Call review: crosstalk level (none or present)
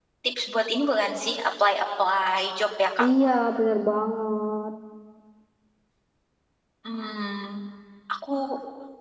none